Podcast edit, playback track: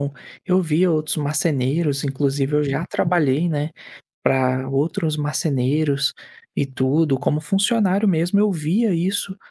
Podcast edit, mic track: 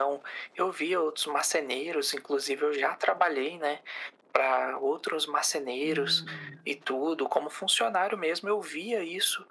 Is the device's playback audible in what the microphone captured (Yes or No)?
Yes